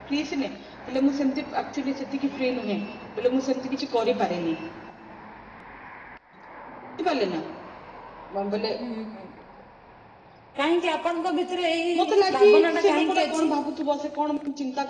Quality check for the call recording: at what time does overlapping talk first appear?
11.9 s

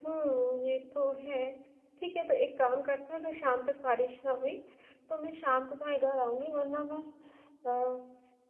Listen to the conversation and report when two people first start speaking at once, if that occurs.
none

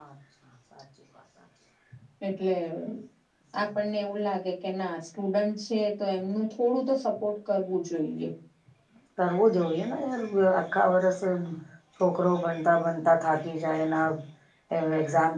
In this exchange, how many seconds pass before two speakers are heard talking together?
none

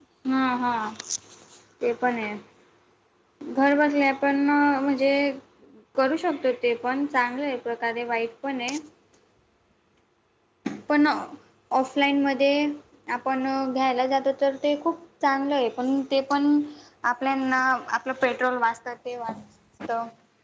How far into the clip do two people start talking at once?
none

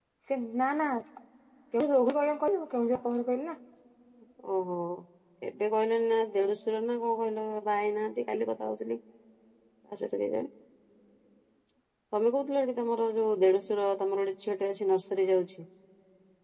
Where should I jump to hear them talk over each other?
none

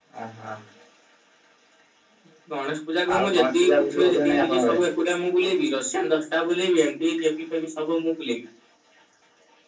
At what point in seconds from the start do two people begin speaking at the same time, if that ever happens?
3.2 s

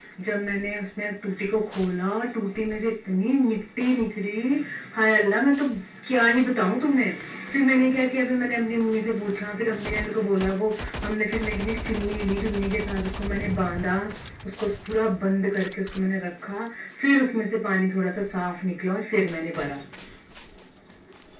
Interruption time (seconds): none

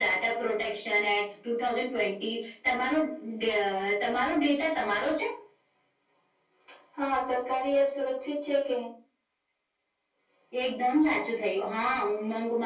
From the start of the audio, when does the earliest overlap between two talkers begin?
none

